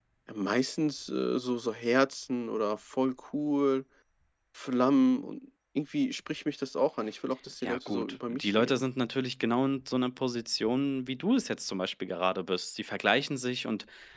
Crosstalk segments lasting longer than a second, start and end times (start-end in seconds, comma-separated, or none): 7.6-8.8